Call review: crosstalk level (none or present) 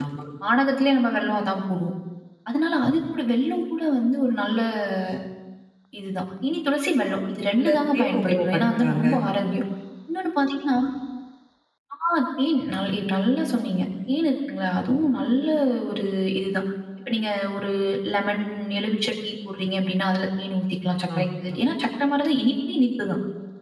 present